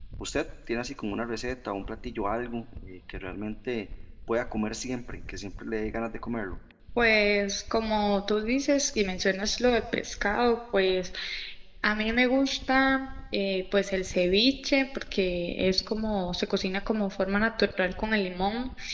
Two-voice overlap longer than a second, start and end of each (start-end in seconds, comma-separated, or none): none